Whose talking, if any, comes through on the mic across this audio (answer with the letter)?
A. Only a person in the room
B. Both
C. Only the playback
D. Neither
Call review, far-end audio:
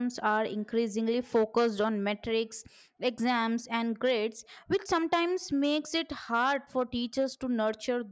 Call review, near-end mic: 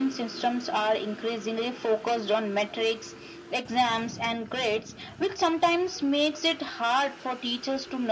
C